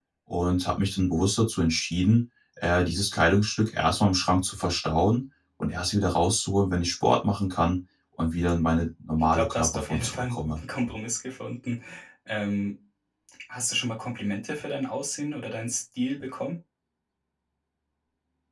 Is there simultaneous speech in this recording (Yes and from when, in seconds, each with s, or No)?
Yes, from 9.3 s